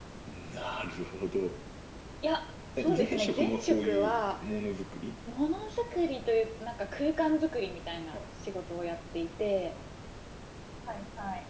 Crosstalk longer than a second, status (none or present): present